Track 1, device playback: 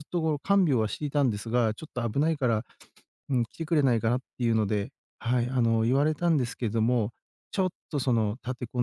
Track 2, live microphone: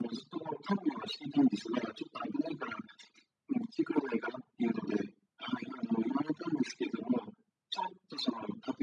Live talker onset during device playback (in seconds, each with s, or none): none